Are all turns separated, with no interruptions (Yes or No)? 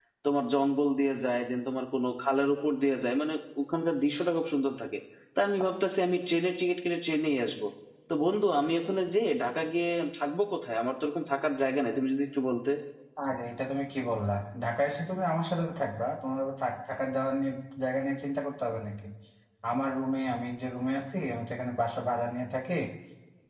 Yes